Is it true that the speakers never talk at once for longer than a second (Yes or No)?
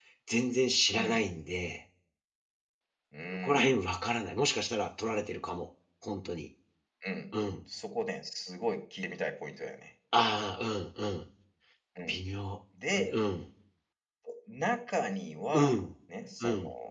Yes